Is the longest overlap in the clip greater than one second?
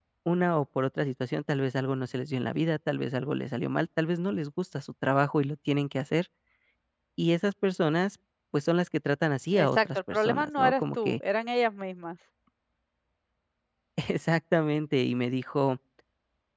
Yes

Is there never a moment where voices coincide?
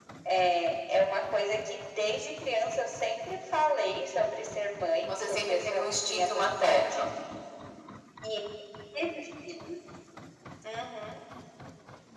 No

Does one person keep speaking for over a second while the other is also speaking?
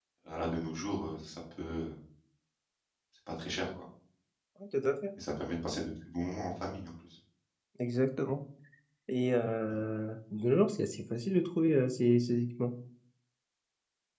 No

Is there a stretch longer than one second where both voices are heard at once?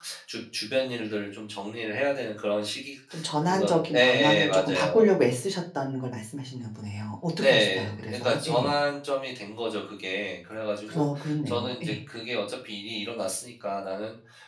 Yes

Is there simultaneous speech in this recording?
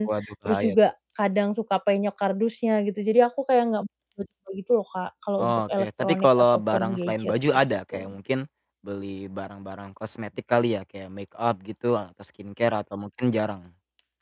Yes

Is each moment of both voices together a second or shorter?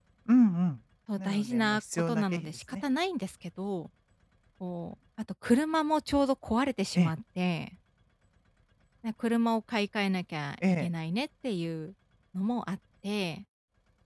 No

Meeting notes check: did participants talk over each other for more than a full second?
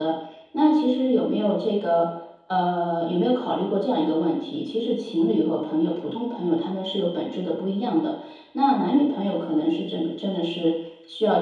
No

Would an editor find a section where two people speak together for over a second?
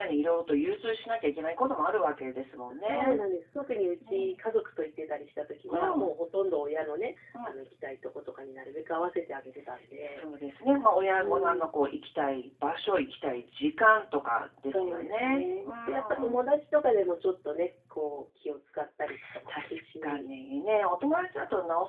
Yes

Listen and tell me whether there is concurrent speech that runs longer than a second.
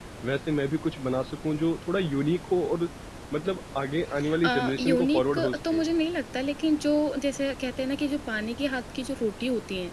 Yes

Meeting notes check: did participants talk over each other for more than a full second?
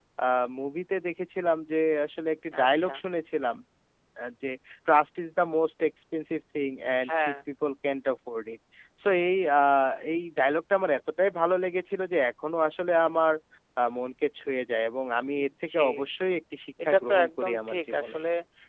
Yes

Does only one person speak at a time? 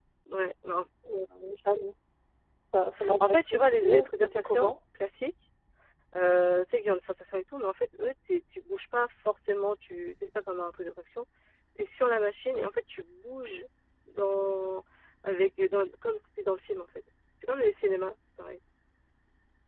No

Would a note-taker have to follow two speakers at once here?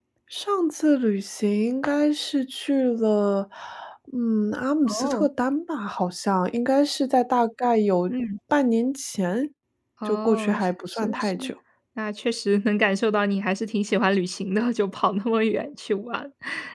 Yes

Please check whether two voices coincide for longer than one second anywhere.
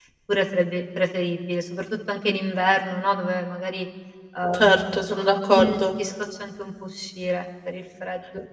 No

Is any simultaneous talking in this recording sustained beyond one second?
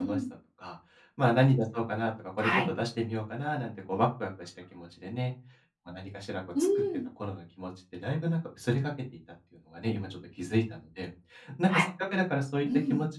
No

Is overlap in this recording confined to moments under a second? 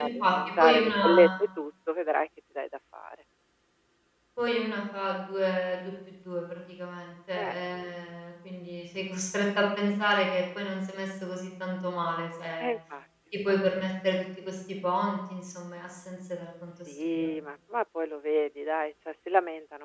No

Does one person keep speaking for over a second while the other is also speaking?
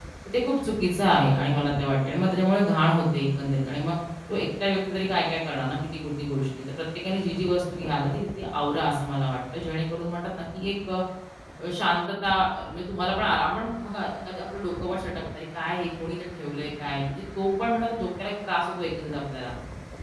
No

